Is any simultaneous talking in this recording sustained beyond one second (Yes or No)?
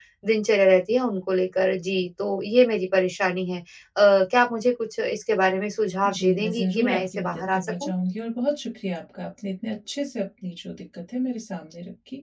Yes